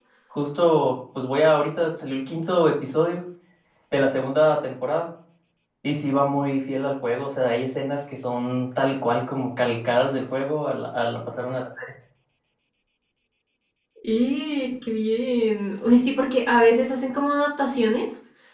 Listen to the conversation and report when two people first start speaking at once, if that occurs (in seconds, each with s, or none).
none